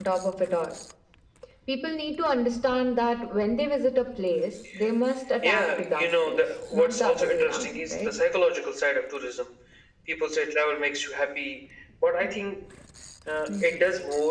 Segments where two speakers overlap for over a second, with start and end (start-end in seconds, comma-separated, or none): 5.4-8.1